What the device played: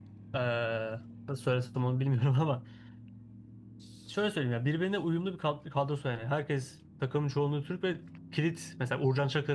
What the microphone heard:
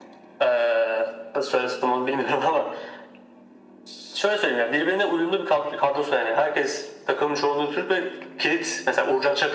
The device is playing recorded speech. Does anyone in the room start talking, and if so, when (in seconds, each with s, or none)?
none